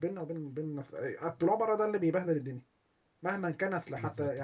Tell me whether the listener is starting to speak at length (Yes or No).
No